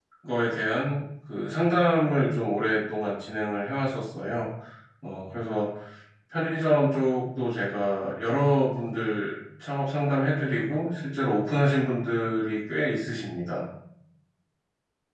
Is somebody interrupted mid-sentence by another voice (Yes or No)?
No